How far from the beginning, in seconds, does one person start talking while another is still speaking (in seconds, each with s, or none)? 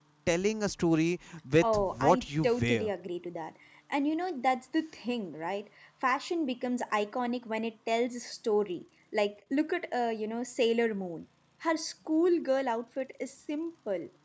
1.6 s